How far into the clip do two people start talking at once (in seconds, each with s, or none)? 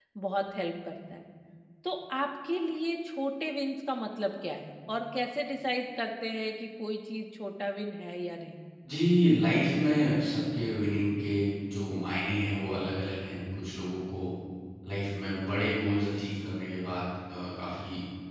none